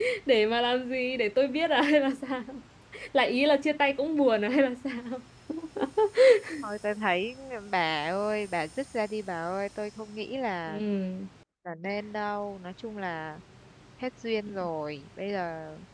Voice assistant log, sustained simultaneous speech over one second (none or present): none